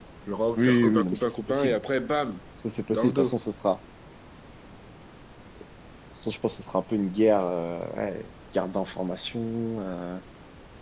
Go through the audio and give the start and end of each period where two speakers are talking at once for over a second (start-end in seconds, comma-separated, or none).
0.6-1.8